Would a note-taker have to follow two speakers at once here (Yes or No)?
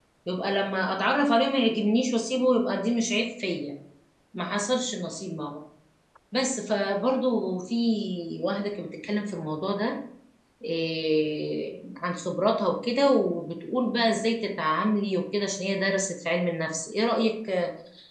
No